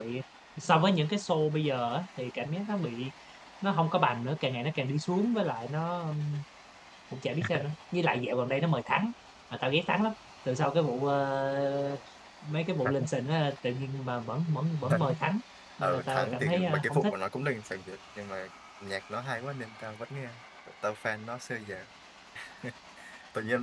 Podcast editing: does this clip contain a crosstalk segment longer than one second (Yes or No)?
Yes